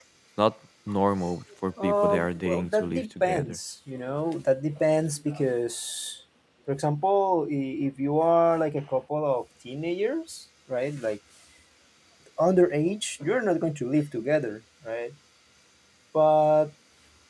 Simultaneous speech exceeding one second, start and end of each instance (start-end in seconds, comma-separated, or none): 1.8-3.6